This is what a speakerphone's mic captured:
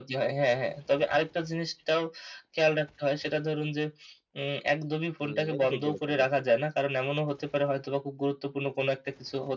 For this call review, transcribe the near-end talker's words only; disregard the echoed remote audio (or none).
হুম। এটা ঠিক বলেছেন কিন্তু।